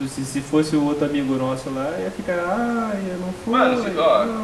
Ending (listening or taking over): taking over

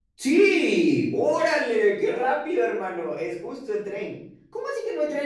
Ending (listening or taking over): listening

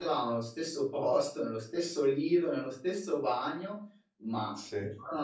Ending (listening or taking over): listening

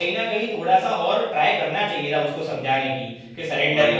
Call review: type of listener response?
listening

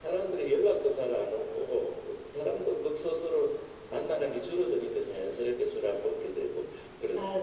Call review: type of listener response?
taking over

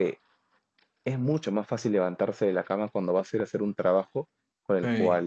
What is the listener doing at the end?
listening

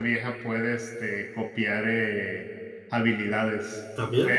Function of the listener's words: listening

